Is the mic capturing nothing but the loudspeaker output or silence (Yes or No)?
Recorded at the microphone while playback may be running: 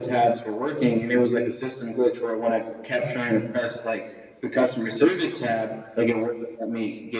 Yes